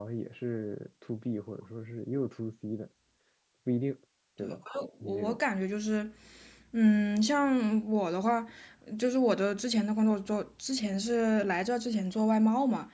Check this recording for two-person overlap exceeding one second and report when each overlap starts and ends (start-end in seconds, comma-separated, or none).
none